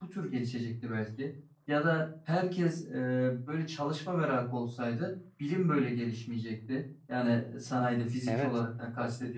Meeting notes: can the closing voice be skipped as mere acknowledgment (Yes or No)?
Yes